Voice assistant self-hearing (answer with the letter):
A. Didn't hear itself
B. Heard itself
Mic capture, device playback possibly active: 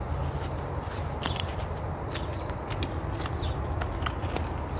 A